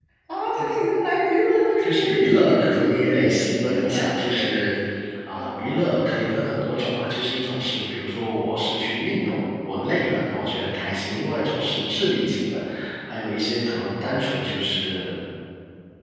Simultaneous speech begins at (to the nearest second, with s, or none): 2 s